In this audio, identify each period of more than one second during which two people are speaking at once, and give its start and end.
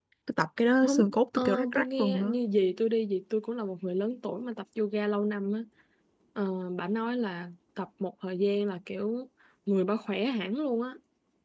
0.8-2.3

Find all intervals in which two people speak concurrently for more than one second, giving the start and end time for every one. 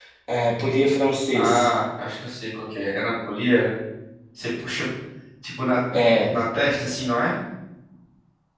none

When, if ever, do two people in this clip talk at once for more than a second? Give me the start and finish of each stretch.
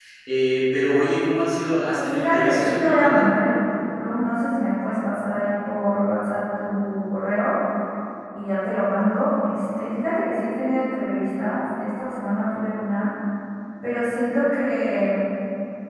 1.9-3.2

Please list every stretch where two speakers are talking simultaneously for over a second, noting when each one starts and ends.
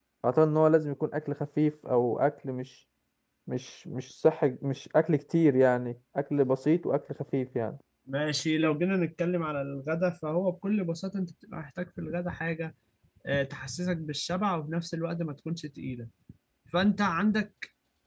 none

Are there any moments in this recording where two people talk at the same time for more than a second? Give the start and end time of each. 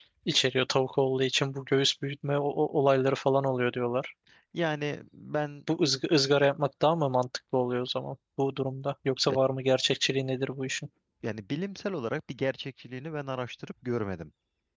none

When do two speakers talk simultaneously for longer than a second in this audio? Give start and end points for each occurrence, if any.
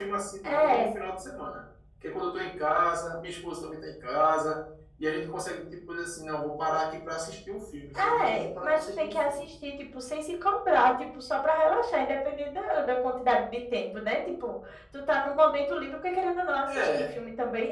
8.2-9.5

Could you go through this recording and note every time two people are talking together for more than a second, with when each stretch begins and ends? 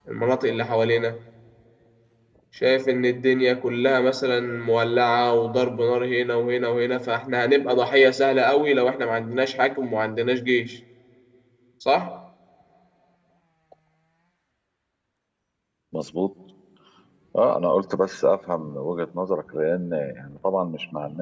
none

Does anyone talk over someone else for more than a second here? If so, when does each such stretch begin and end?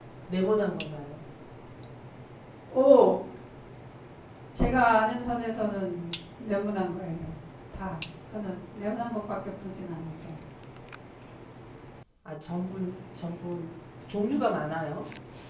none

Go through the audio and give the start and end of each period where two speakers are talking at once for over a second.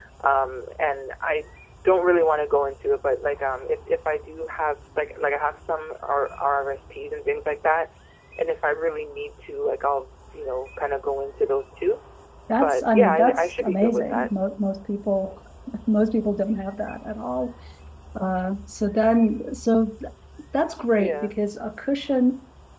12.6-14.3

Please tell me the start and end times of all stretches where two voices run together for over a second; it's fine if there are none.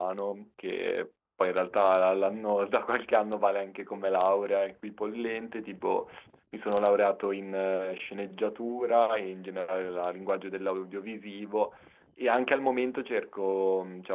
none

